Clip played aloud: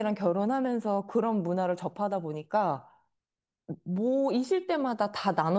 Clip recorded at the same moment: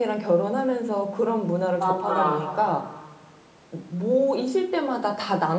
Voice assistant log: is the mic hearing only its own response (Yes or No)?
No